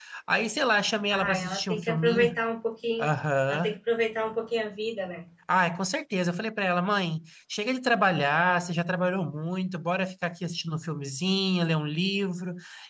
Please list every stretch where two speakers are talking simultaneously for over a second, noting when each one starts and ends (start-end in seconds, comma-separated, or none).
1.1-2.4